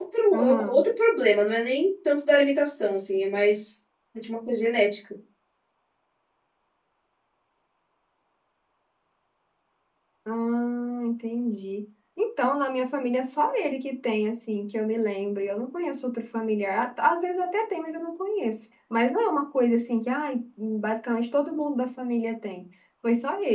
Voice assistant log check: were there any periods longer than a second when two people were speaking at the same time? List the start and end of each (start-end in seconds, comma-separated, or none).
none